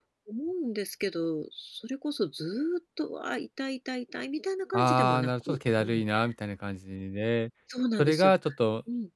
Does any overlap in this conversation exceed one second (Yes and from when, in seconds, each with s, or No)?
Yes, from 4.7 s